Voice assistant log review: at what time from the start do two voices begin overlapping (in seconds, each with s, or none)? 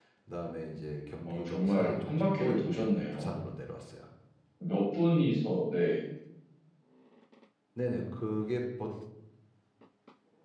1.3 s